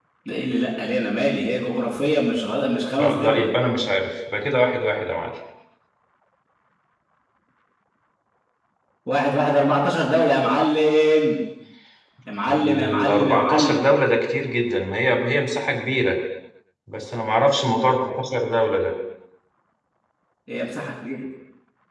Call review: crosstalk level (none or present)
present